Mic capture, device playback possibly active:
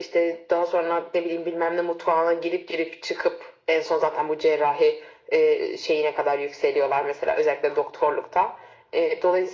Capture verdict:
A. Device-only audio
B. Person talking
A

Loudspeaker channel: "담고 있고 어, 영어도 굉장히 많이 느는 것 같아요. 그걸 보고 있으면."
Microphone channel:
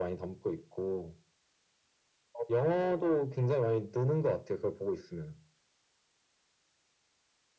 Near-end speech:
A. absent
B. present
A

